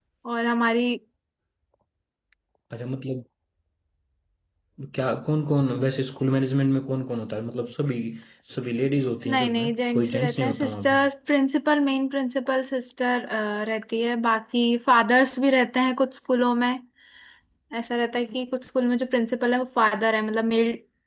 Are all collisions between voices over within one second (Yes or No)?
No